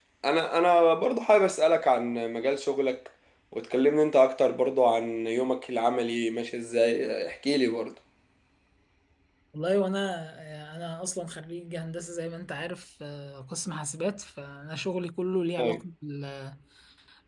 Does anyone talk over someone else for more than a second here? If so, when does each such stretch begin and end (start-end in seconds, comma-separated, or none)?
none